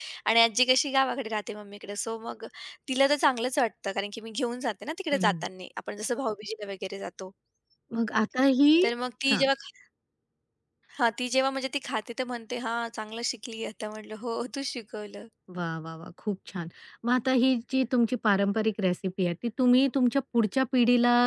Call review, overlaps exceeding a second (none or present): none